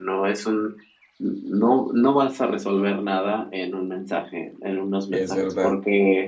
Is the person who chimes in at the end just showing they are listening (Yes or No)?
Yes